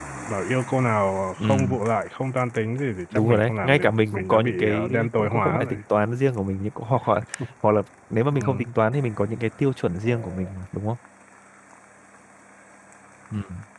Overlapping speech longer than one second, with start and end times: 3.1-5.8

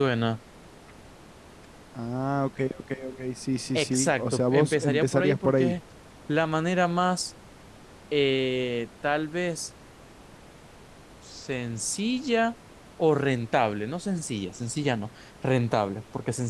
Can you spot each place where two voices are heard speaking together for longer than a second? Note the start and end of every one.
3.8-5.8

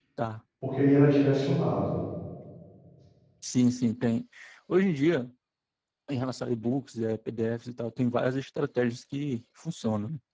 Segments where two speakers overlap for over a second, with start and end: none

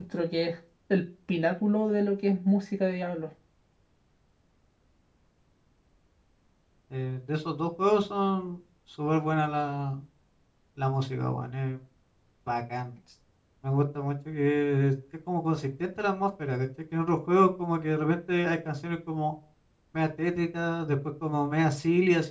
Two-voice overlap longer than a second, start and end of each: none

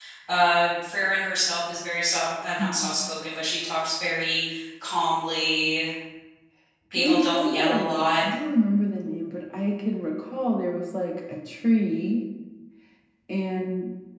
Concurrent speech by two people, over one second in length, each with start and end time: 7.0-8.2

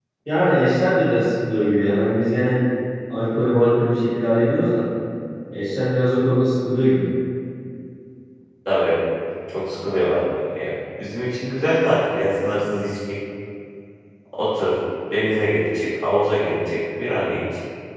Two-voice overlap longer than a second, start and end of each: none

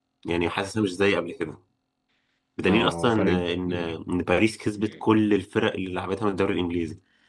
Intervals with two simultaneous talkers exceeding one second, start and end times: 2.7-3.9

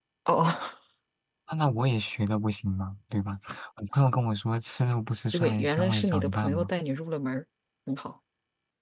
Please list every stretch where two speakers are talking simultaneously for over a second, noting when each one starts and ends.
5.3-6.7

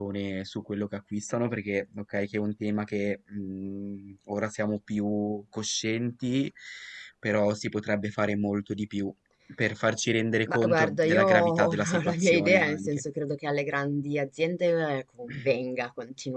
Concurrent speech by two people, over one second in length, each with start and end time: 10.5-12.9

